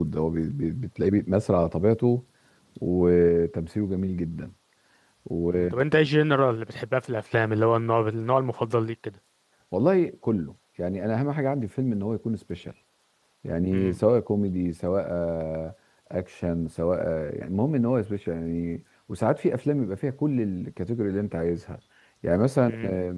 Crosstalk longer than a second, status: none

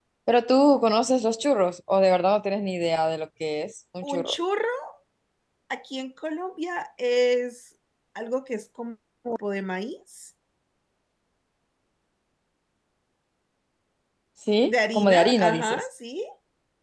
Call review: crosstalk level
present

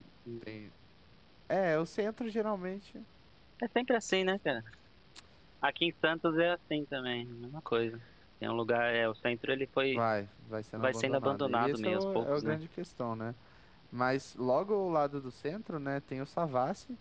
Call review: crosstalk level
present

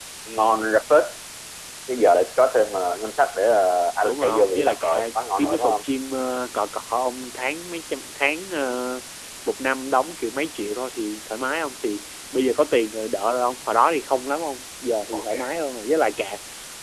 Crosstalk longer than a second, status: present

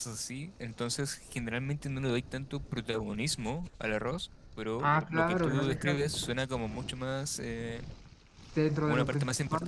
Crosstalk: present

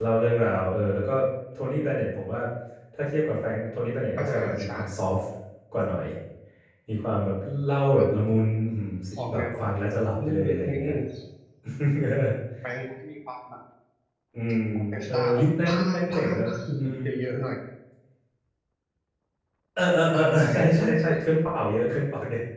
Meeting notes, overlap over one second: present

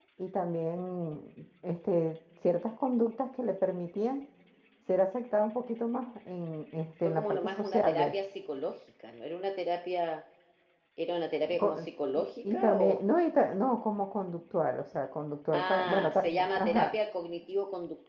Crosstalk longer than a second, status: present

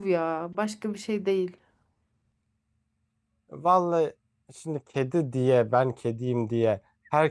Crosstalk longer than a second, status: none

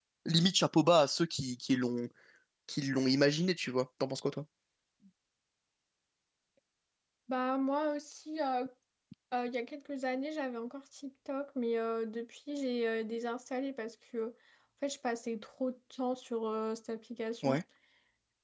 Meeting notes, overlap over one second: none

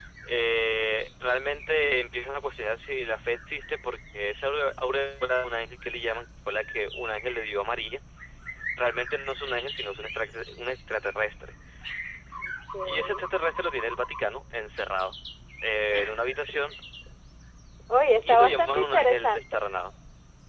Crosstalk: present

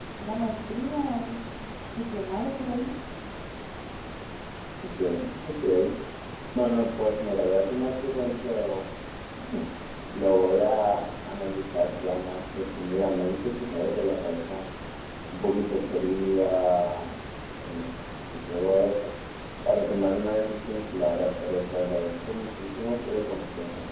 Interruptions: none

